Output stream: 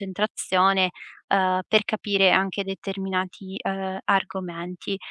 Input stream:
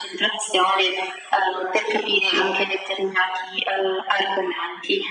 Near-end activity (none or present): none